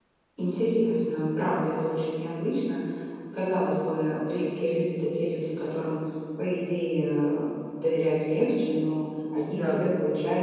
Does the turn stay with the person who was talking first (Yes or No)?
Yes